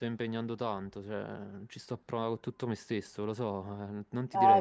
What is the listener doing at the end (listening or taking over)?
taking over